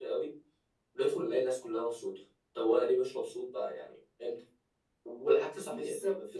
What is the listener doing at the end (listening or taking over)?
listening